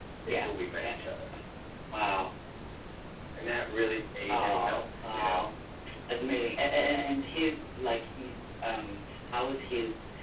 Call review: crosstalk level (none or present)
present